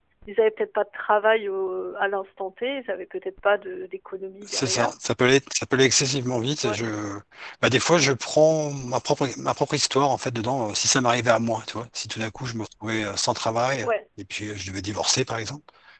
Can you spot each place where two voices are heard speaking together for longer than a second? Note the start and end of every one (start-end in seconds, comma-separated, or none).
none